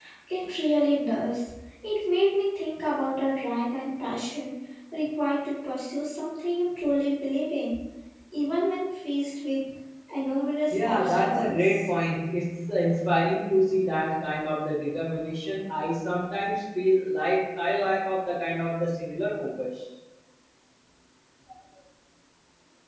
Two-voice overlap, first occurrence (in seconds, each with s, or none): 10.7 s